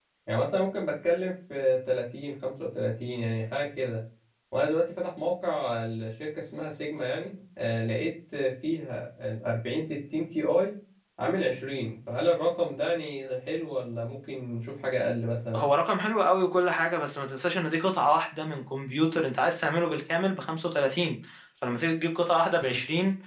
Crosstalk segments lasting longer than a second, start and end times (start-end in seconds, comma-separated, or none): none